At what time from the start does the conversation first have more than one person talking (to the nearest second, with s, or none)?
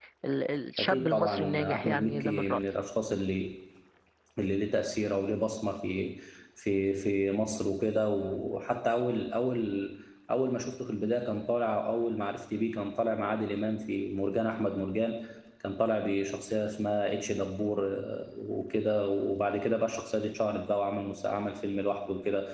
1 s